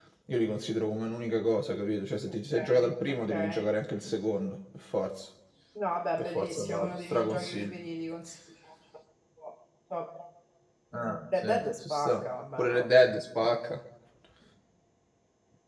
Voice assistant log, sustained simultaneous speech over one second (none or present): present